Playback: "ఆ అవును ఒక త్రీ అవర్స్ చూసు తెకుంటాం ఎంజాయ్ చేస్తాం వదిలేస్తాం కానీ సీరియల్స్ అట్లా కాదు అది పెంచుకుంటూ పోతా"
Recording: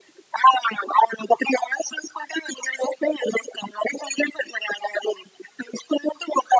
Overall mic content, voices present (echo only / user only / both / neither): echo only